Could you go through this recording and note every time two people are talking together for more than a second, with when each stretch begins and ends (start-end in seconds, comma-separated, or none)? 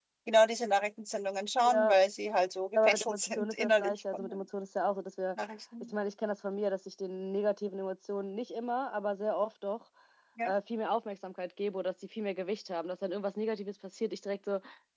2.8-4.4